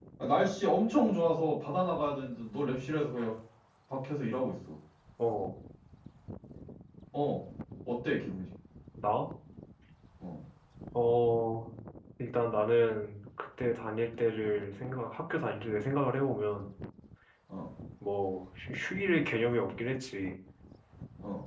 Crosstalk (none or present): none